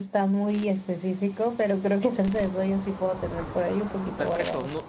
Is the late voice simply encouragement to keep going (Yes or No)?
No